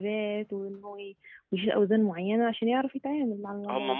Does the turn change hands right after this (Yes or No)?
Yes